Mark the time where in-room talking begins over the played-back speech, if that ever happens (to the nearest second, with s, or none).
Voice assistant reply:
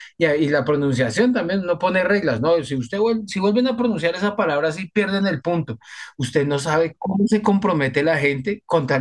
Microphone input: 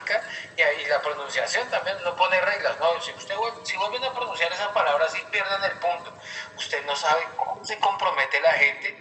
none